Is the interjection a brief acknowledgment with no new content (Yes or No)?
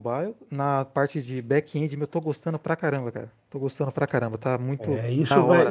No